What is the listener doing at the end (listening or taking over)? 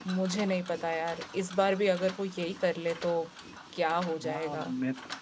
taking over